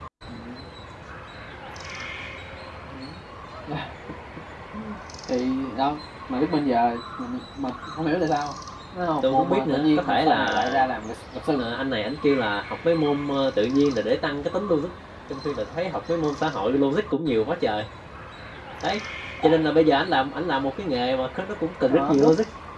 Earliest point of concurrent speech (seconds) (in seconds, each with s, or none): 9.2 s